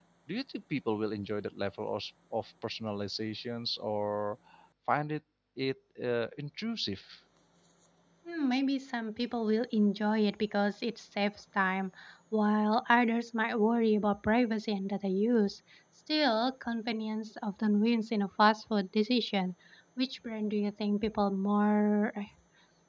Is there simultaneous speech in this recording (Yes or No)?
No